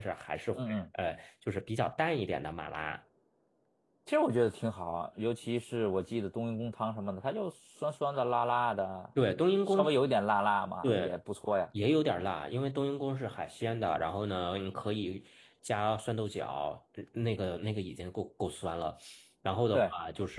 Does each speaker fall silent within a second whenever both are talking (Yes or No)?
Yes